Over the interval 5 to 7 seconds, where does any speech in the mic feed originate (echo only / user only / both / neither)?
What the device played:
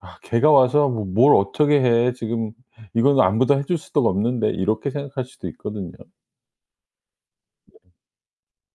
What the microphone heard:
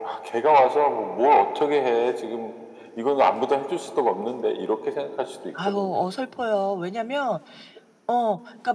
both